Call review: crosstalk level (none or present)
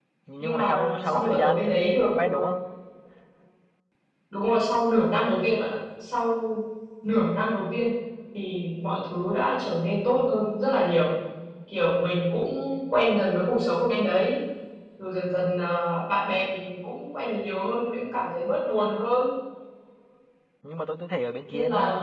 present